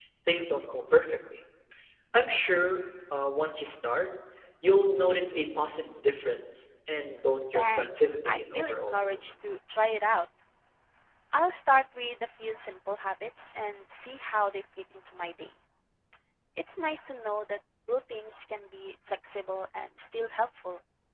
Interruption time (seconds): 7.5 s

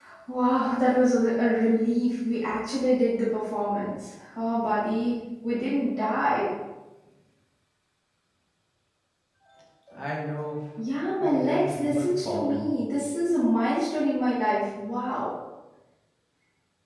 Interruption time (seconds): 11.2 s

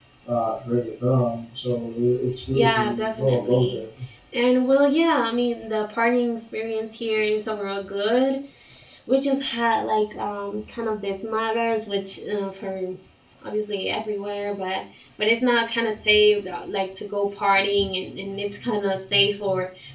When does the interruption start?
2.4 s

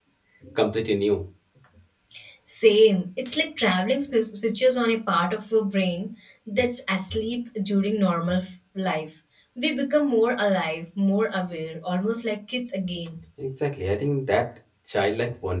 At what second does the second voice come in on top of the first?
none

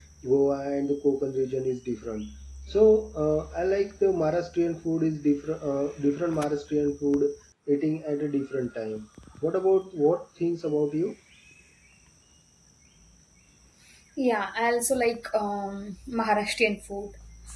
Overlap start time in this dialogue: none

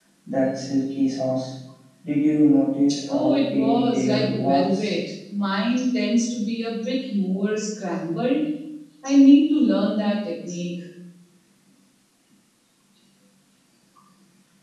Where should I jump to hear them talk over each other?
3.1 s

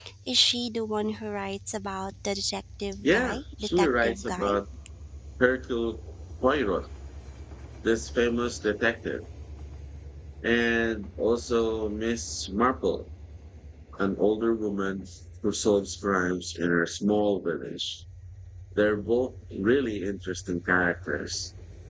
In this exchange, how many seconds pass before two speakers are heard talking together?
3.0 s

